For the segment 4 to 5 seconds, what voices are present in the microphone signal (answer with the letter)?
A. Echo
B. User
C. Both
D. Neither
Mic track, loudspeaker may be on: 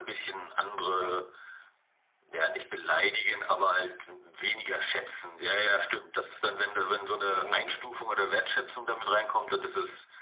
A